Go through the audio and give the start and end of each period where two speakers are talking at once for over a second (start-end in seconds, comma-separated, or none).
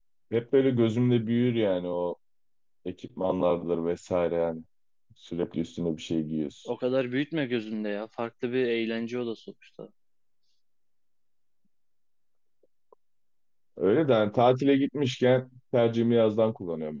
none